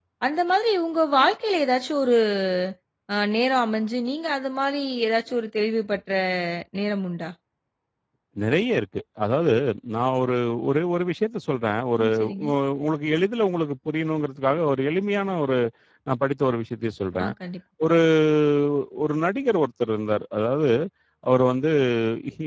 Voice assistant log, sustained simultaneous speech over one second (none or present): none